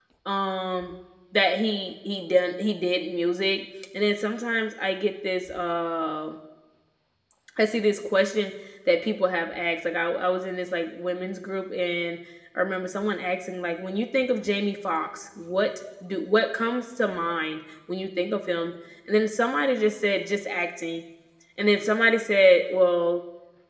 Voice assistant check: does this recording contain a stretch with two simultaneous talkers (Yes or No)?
No